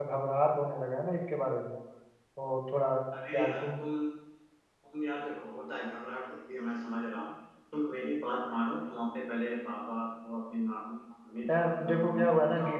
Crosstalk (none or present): present